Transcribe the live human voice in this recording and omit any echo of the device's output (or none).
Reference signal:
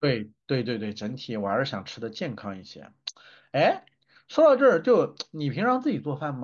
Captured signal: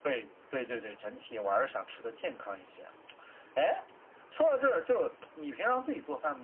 none